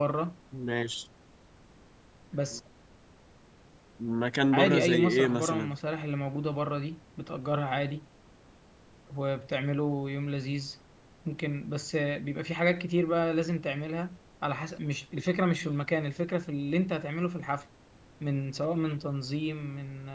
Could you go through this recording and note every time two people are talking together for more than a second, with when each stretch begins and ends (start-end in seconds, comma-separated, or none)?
4.5-5.7